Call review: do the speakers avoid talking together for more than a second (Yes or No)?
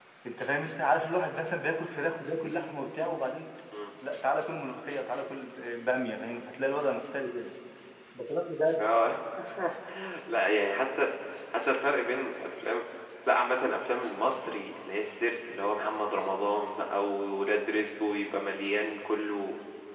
Yes